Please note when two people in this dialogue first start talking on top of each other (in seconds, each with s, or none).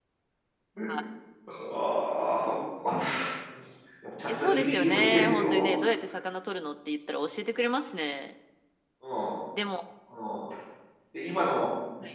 4.3 s